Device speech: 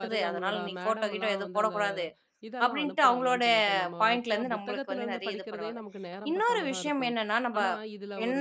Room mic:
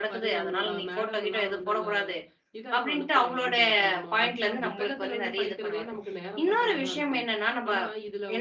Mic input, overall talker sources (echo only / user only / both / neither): echo only